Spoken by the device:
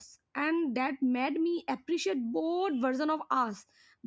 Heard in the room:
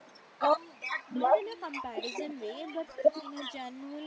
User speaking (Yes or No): Yes